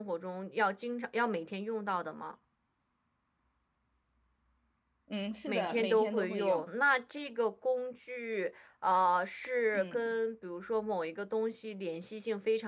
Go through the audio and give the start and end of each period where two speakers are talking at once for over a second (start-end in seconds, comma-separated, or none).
5.5-6.7